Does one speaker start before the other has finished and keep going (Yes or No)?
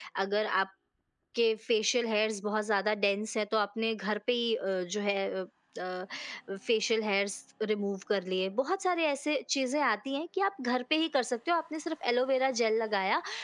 No